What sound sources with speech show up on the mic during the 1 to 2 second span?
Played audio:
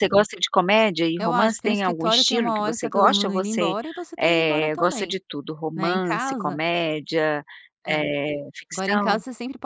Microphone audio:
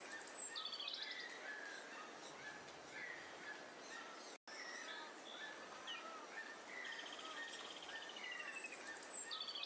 neither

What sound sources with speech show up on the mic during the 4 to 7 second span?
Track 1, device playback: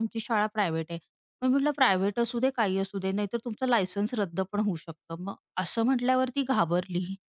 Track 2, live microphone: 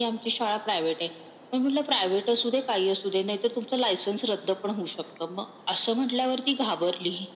echo only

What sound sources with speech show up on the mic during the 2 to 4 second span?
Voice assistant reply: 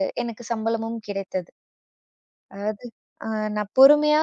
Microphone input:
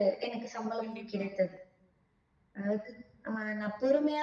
echo only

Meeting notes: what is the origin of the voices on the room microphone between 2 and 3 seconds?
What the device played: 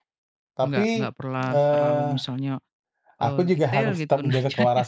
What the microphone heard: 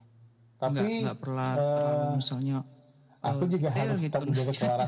echo only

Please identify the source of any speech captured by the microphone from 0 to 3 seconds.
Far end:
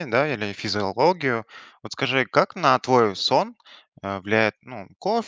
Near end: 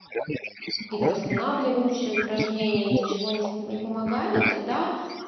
both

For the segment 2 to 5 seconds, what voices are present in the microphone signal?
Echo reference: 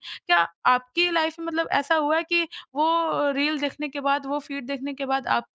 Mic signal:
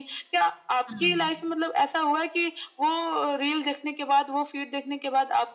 echo only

